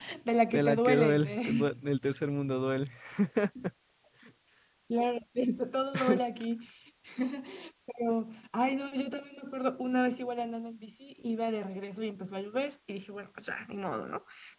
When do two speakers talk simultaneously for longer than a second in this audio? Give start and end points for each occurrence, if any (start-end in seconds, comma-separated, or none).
0.5-1.7